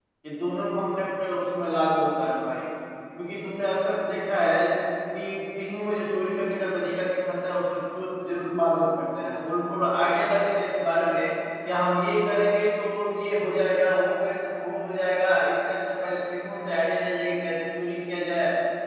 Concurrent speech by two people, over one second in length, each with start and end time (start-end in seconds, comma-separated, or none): none